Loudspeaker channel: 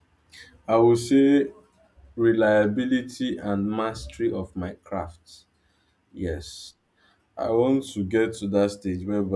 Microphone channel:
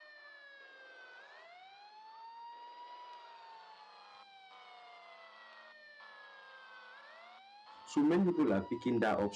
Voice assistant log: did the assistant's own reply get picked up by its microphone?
No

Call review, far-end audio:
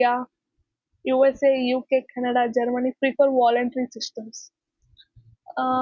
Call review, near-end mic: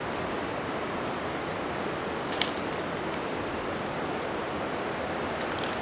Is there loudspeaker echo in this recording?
No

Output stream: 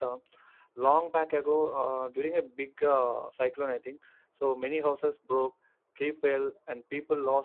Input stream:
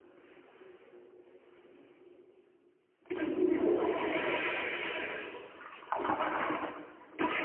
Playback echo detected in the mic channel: No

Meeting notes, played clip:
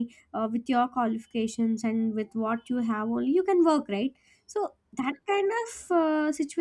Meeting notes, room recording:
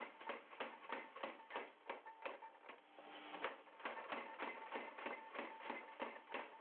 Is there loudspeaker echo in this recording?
No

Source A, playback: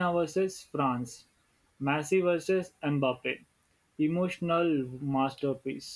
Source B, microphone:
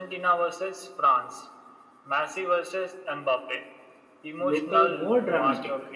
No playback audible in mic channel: No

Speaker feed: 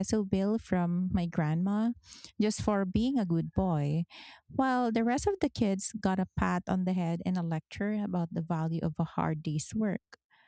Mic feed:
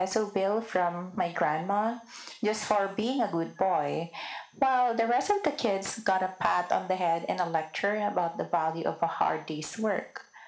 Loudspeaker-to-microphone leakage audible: Yes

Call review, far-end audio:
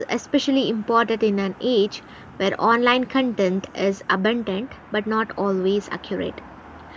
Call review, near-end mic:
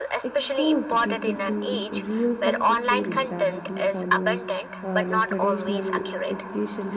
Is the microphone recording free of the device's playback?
No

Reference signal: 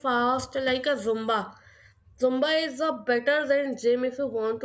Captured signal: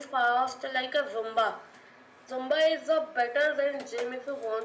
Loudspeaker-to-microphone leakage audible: Yes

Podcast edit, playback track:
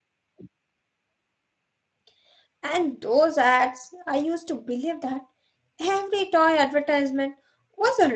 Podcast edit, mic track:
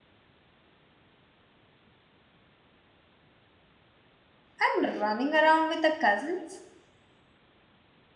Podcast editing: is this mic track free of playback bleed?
Yes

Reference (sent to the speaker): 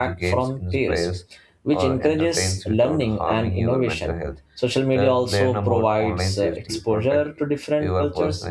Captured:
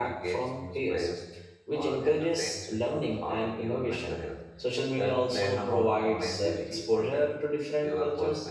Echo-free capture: No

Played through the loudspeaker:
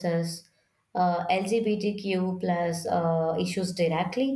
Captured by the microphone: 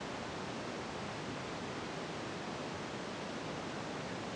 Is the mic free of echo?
Yes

